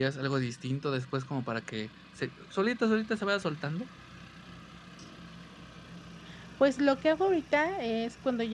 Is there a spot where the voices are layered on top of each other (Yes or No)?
No